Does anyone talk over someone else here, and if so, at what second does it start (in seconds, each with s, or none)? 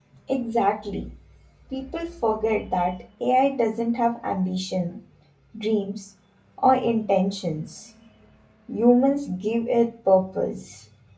none